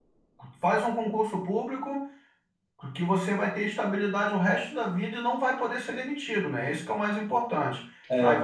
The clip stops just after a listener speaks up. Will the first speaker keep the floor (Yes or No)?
Yes